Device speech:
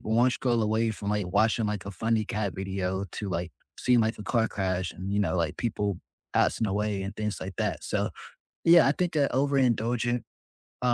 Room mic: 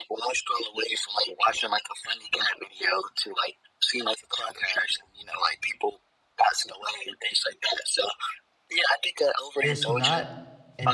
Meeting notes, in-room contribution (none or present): present